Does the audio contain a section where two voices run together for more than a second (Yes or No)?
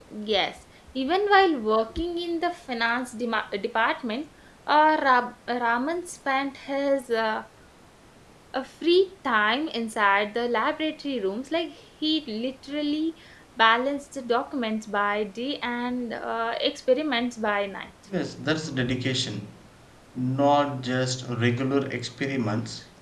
No